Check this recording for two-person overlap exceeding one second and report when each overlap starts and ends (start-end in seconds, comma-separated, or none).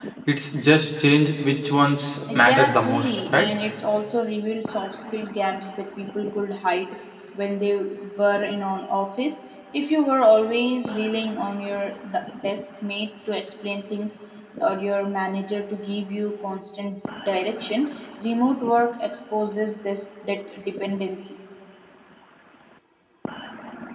2.4-3.6